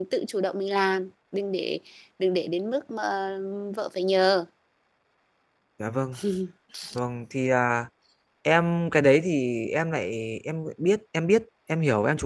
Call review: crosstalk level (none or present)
none